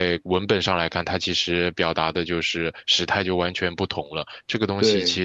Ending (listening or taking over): listening